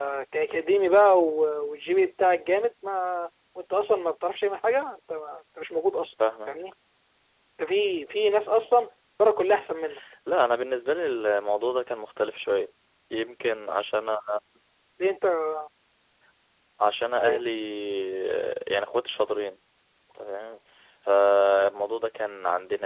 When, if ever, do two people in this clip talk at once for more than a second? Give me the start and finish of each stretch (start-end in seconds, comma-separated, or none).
none